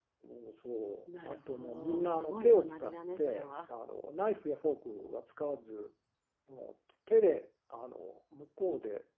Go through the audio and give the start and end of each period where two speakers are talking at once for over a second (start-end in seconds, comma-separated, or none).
1.2-3.7